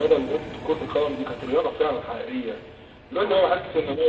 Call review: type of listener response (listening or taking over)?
listening